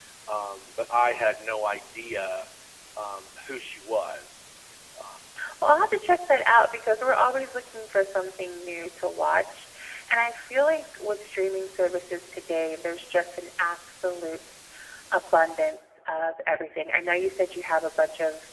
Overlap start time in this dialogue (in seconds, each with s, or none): none